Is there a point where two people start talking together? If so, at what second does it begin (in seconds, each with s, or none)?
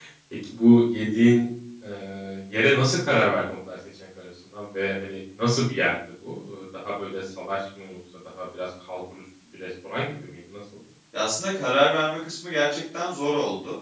none